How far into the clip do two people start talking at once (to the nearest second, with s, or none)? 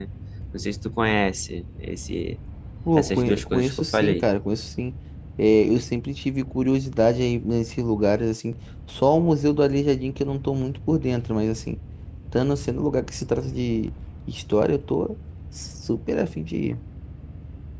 3 s